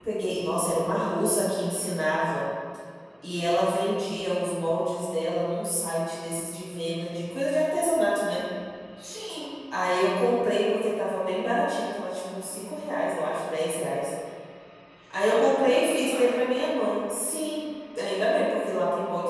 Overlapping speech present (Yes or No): Yes